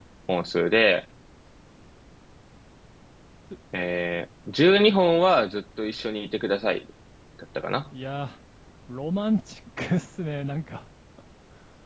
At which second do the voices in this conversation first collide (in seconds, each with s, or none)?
none